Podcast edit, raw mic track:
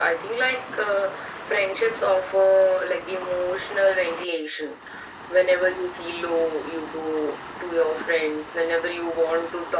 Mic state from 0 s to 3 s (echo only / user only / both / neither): echo only